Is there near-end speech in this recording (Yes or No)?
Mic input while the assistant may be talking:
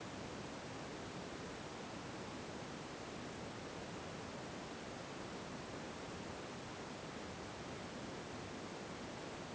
No